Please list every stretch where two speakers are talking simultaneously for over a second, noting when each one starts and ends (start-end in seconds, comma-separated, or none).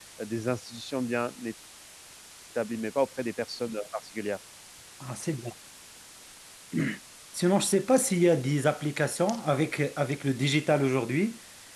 none